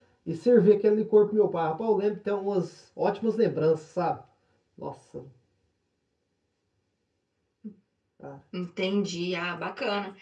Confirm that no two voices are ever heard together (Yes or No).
Yes